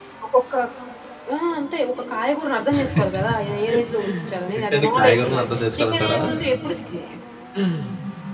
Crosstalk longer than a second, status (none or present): present